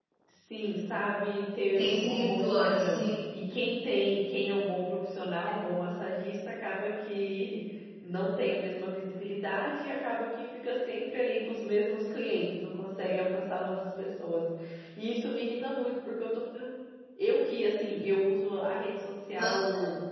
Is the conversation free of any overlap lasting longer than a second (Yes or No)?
No